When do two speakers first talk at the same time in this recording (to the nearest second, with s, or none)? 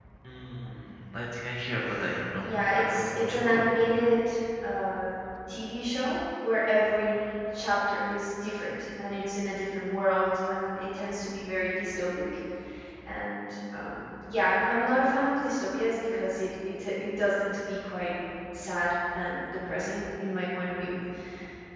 2 s